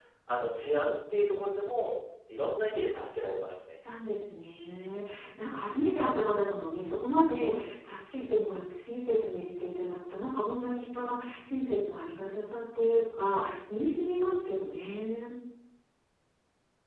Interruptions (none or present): none